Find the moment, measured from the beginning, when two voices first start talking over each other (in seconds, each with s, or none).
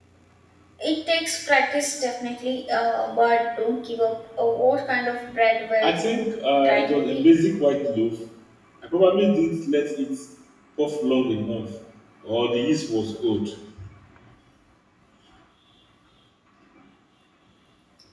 5.8 s